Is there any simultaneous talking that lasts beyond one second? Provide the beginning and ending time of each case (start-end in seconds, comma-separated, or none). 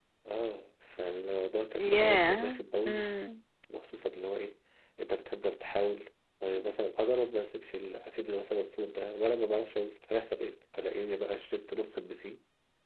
1.8-3.1